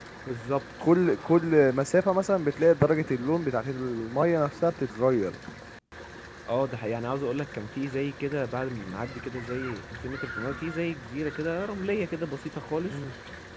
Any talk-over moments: No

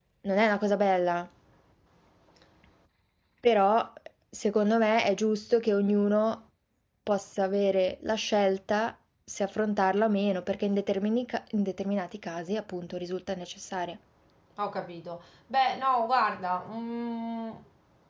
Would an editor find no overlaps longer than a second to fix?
Yes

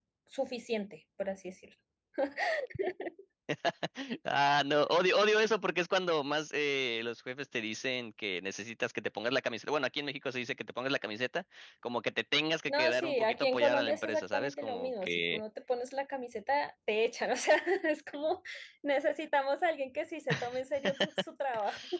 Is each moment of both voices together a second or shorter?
No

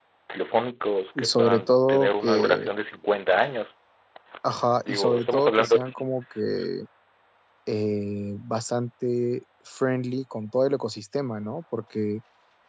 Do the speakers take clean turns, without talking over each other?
No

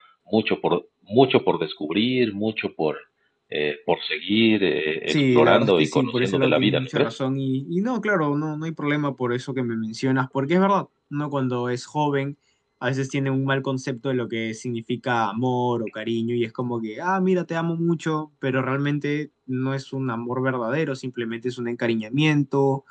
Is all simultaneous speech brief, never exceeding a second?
No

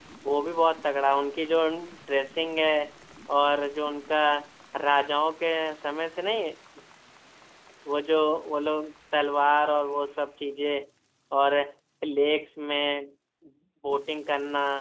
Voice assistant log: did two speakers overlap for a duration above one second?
No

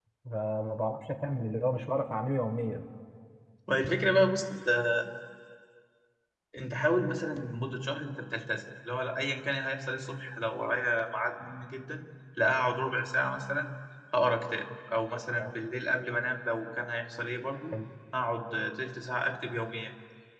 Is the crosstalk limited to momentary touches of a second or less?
Yes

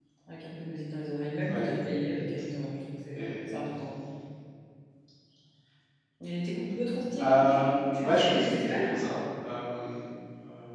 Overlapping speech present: Yes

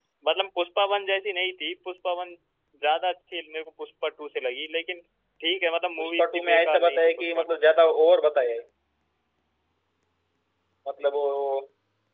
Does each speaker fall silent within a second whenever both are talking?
No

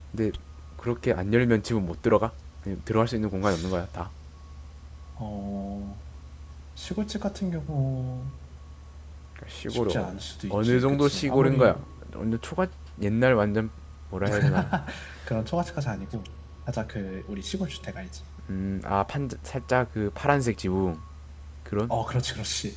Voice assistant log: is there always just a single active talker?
No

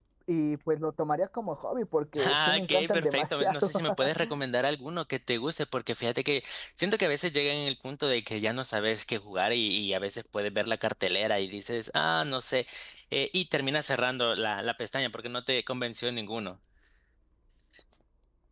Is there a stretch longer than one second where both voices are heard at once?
Yes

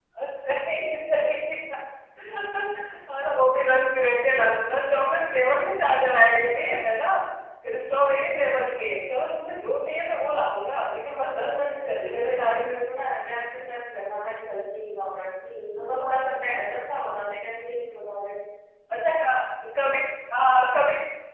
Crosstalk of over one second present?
Yes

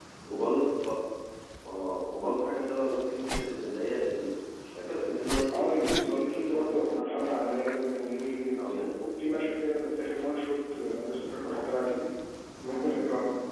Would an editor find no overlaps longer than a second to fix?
No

